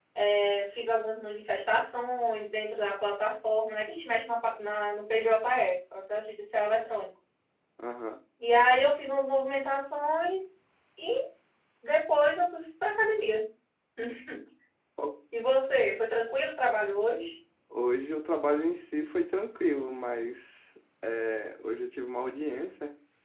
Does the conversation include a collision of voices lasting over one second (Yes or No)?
No